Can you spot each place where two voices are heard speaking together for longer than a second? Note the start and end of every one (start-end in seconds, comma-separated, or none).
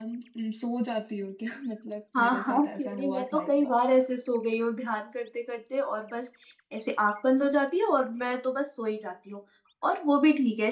2.2-3.8